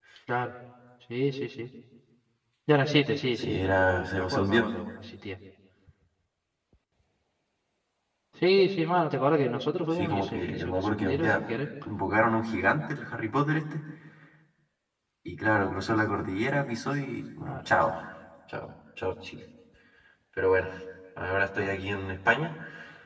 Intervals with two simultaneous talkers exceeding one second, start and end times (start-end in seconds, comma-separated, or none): 3.4-4.7, 9.9-11.4